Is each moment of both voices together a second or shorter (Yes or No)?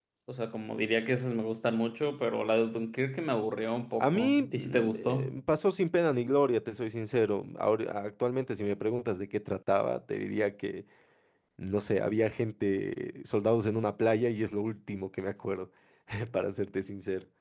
No